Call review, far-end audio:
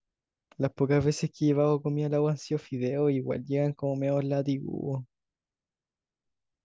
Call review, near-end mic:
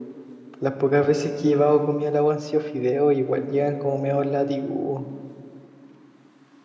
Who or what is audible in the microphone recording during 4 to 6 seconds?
echo only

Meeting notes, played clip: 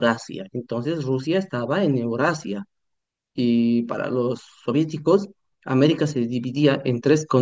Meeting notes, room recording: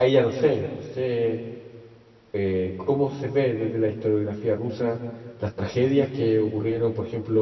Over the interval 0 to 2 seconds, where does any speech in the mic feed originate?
user only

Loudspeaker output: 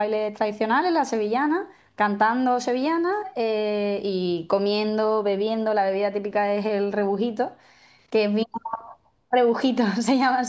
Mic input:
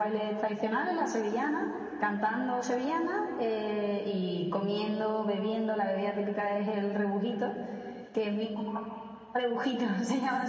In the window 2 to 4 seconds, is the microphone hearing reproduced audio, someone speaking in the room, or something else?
echo only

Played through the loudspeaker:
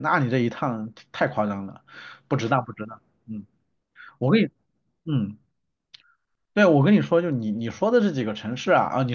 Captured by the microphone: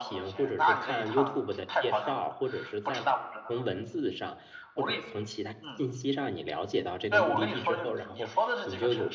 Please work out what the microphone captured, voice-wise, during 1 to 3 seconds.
both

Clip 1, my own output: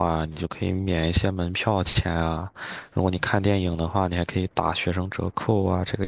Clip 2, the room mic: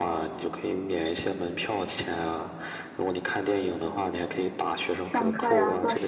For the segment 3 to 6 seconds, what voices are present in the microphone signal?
both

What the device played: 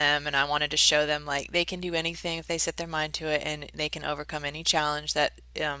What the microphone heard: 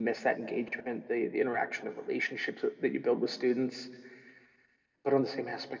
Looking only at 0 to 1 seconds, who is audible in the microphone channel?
user only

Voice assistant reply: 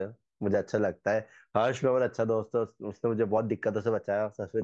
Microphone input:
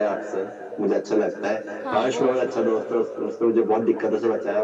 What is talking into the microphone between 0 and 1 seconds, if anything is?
echo only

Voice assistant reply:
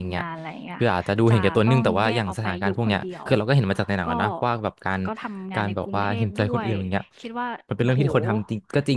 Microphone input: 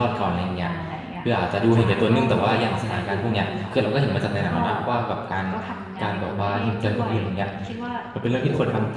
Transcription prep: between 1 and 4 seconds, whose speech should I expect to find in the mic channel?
echo only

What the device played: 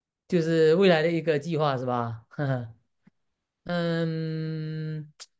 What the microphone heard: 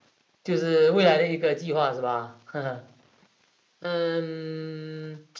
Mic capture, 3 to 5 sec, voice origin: echo only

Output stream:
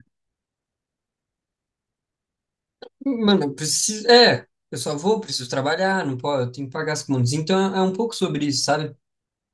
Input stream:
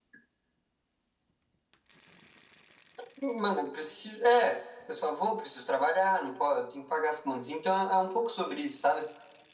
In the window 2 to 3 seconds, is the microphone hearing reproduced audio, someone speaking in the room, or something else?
neither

